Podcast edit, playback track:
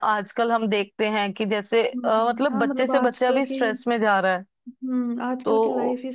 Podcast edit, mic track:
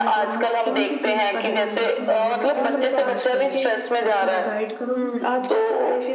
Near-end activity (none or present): present